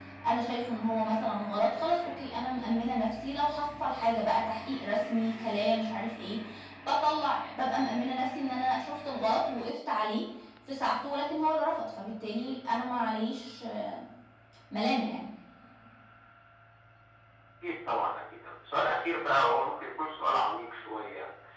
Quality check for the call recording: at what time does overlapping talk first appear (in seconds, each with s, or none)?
none